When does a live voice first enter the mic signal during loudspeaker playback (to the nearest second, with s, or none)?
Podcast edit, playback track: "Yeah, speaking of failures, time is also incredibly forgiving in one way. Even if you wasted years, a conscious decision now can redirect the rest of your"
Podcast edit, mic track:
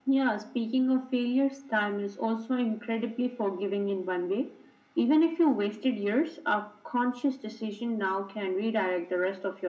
none